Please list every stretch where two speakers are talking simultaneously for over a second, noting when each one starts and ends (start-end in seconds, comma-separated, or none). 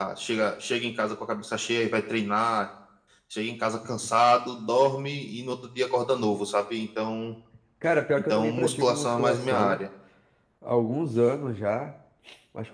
8.3-9.8